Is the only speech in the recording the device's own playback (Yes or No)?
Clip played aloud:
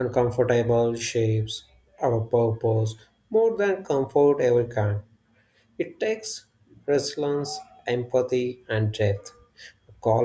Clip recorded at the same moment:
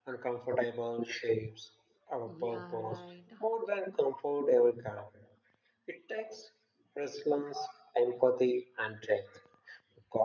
No